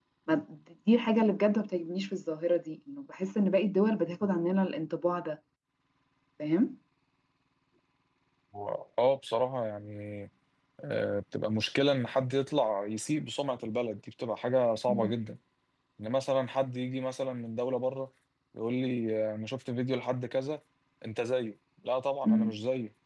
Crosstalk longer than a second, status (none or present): none